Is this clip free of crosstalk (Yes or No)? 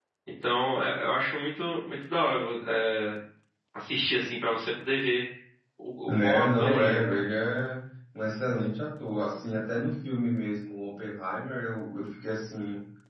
No